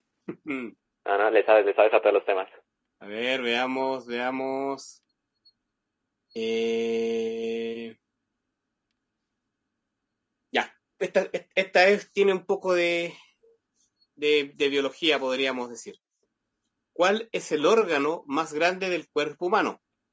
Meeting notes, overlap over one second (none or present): none